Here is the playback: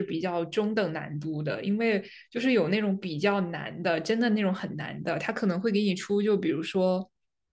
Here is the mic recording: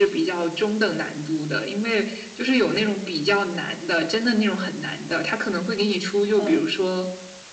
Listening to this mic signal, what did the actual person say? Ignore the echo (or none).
嗯，